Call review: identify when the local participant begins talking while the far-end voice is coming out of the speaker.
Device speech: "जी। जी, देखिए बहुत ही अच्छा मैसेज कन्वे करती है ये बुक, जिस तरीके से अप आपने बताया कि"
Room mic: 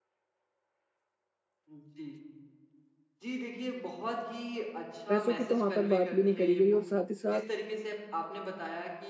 5.1 s

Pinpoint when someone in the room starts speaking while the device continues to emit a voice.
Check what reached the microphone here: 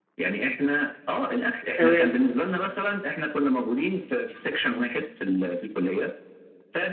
1.6 s

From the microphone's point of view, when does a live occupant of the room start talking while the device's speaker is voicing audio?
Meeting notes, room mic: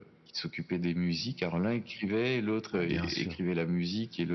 2.8 s

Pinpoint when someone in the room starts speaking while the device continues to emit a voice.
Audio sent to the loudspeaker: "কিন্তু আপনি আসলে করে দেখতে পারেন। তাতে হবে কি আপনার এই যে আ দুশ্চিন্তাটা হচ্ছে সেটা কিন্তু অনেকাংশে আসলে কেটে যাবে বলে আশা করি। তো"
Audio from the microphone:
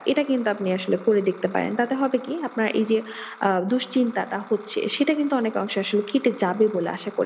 none

